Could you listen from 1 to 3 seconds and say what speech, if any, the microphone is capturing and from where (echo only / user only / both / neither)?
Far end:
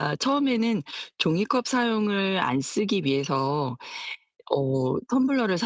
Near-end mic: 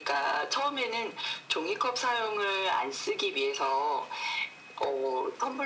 echo only